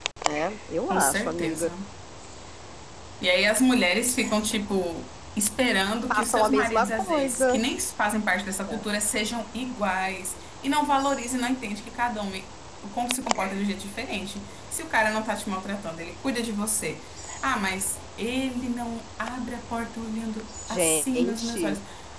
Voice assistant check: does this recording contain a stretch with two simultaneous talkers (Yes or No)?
Yes